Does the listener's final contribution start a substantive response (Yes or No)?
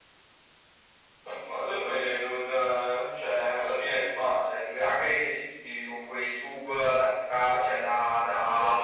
Yes